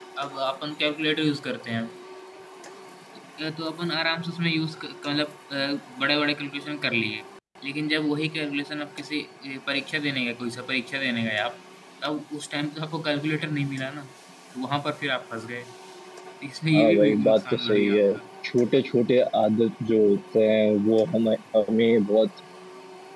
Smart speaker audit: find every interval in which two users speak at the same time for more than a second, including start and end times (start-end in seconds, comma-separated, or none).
16.7-18.0